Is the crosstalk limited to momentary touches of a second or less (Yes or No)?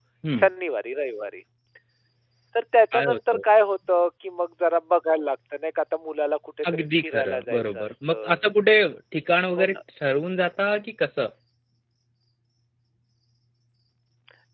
No